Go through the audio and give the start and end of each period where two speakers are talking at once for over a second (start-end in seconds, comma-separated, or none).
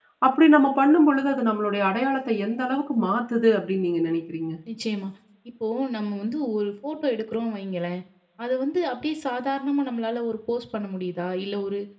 none